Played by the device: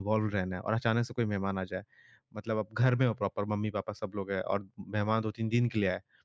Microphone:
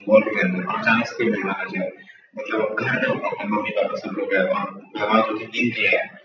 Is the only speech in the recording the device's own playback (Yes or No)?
Yes